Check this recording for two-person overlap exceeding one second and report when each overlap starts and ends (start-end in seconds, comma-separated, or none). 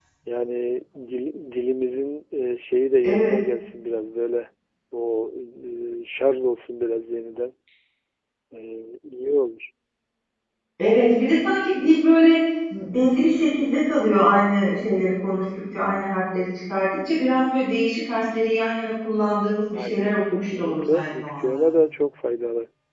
19.7-21.6